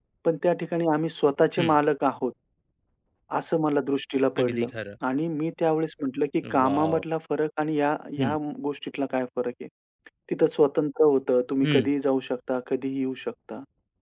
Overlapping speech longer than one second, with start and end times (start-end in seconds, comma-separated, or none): none